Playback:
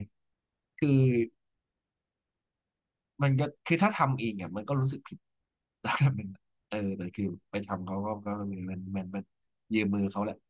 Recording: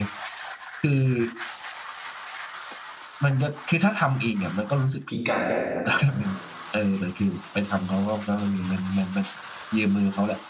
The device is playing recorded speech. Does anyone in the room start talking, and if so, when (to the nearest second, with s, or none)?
5 s